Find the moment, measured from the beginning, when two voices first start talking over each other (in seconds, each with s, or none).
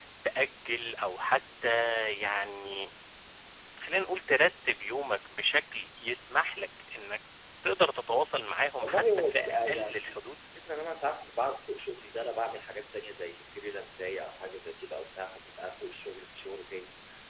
8.8 s